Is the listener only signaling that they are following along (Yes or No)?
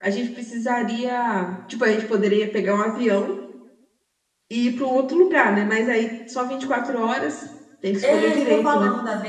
No